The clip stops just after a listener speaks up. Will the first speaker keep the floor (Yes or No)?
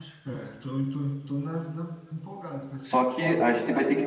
No